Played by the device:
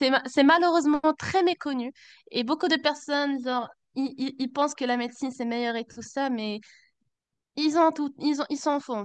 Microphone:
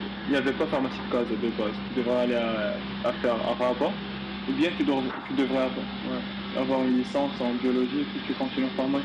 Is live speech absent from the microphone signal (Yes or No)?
No